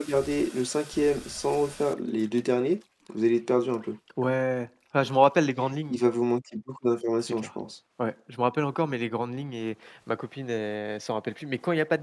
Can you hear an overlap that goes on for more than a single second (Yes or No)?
No